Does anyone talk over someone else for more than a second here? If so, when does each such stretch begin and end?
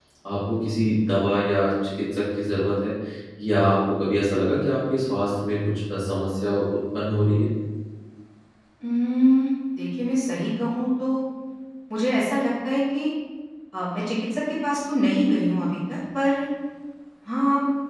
none

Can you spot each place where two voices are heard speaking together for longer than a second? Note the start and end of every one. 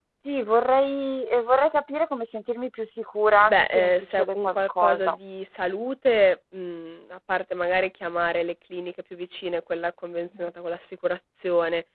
3.5-5.2

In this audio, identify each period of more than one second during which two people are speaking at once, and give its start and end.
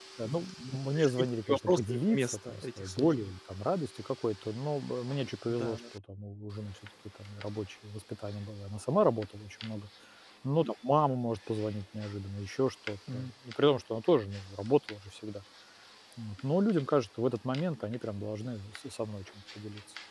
0.7-3.1

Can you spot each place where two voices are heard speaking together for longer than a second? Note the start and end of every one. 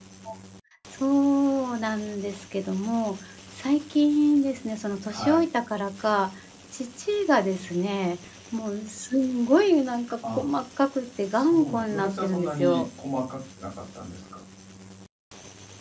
11.3-12.9

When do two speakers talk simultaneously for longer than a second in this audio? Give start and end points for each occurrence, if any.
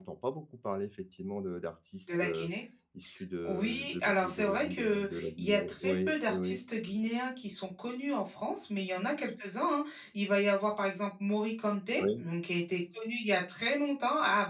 3.4-6.6

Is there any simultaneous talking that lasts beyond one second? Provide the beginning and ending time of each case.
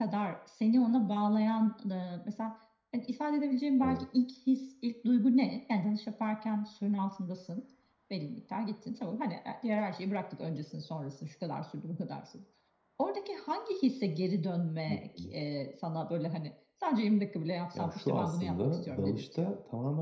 17.8-19.5

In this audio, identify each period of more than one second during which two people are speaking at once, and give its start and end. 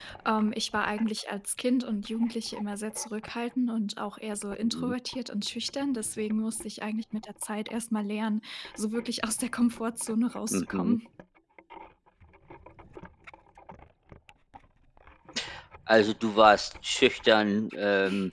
none

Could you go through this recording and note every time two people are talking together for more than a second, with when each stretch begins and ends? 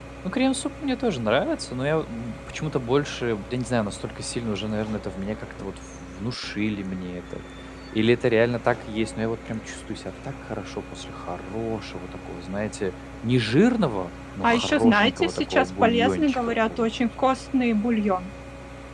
14.4-16.9

